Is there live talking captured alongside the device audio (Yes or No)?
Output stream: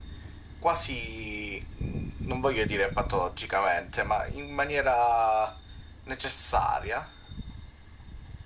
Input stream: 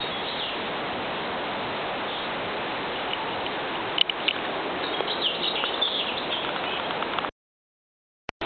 No